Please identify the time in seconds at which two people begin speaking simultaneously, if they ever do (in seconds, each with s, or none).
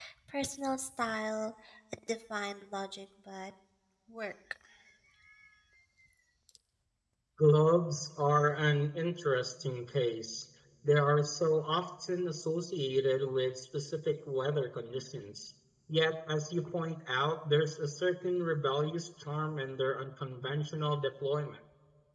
none